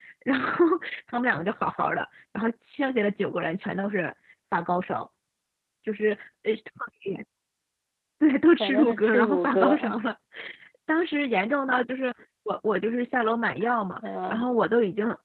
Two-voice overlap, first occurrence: 8.6 s

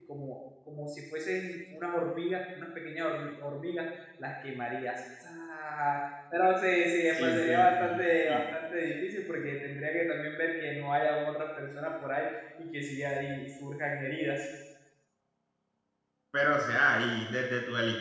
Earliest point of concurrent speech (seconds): 7.1 s

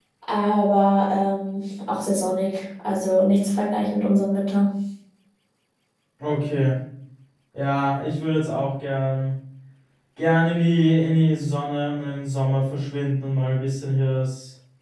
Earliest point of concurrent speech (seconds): none

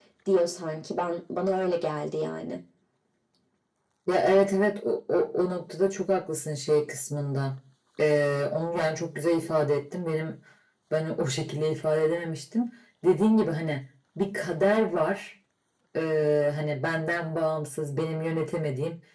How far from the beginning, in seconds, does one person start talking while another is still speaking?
none

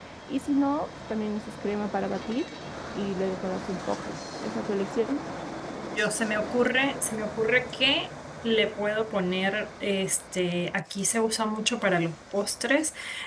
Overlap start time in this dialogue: none

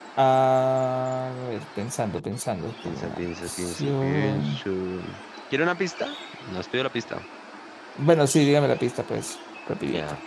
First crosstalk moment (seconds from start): 2.9 s

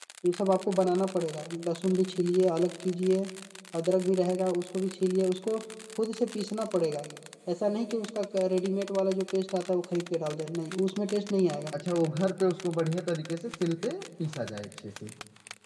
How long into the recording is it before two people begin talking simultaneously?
none

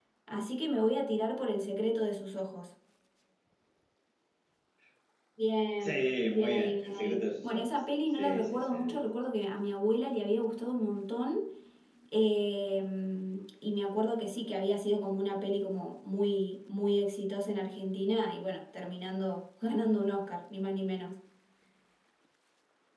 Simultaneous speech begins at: 5.8 s

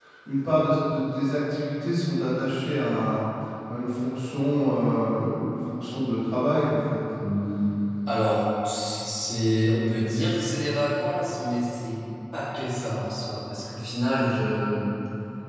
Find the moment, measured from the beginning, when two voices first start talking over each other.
none

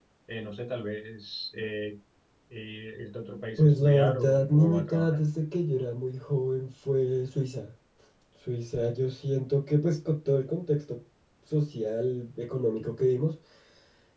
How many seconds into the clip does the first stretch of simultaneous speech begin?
3.6 s

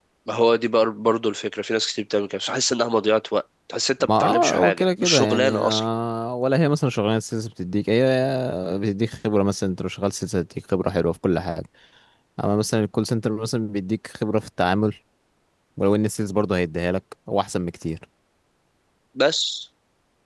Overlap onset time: 4.0 s

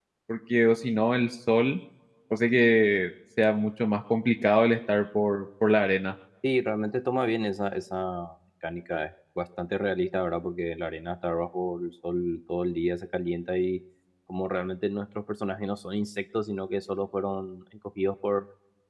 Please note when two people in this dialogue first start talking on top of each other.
none

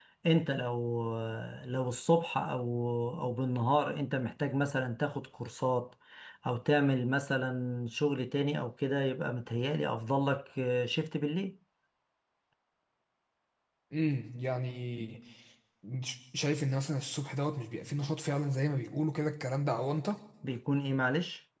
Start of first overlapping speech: none

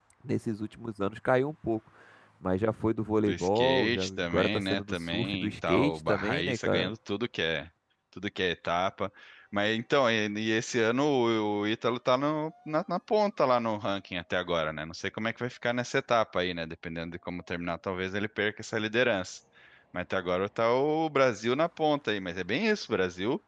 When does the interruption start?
3.3 s

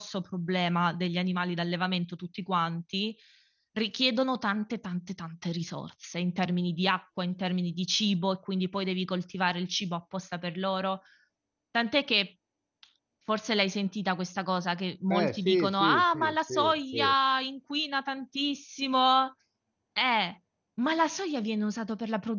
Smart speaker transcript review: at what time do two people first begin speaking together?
15.1 s

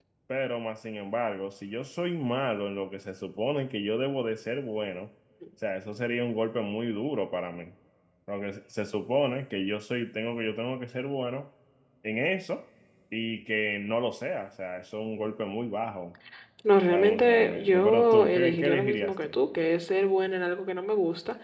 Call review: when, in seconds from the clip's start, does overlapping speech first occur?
16.9 s

